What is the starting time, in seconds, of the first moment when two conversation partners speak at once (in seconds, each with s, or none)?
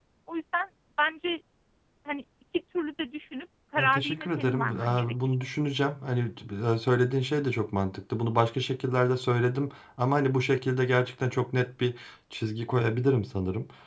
3.8 s